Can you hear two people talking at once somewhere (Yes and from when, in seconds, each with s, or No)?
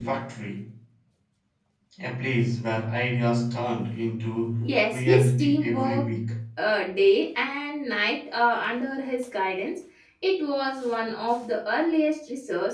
Yes, from 4.6 s